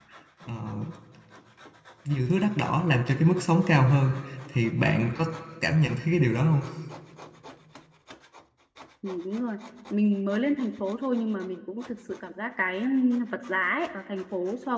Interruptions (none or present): none